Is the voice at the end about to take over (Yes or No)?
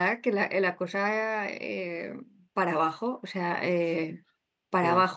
No